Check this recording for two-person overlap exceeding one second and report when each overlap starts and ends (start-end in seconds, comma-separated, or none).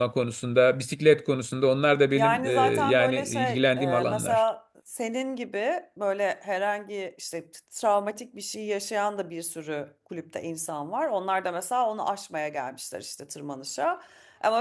2.1-4.4